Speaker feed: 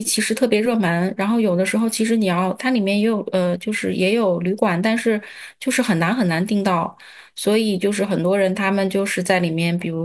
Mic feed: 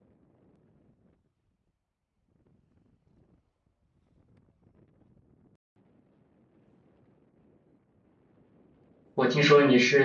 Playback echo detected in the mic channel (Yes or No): No